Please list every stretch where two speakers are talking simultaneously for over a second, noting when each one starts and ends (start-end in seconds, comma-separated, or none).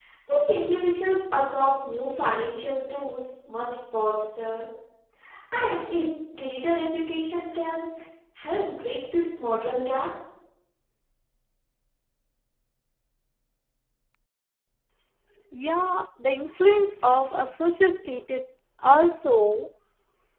none